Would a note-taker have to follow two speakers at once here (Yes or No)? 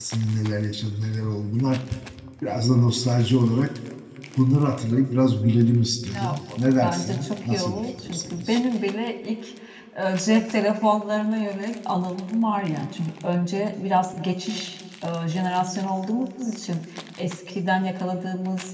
Yes